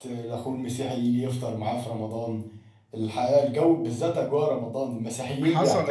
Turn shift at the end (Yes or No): Yes